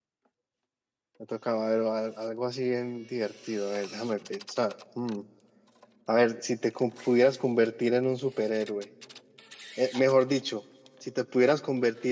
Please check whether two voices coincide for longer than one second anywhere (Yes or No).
No